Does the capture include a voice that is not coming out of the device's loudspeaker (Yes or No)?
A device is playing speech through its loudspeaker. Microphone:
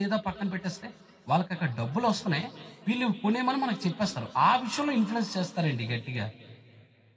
Yes